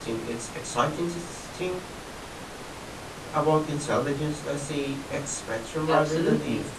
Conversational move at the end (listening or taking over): taking over